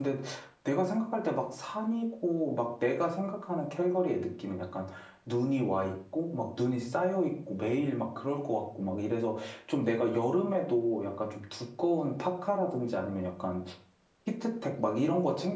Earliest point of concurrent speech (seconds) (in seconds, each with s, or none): none